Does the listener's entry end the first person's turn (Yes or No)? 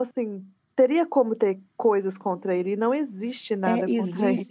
Yes